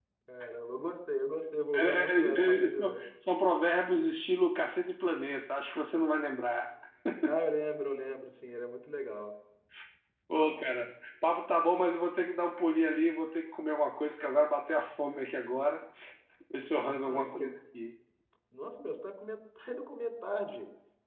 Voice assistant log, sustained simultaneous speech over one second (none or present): present